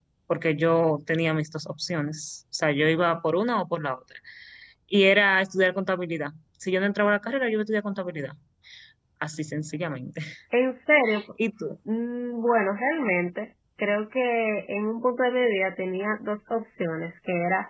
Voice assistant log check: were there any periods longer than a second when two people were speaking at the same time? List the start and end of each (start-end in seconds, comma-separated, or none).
none